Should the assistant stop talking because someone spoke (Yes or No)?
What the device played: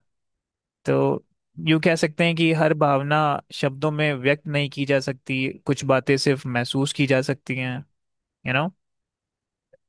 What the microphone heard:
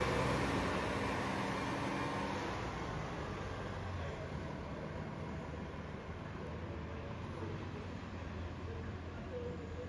No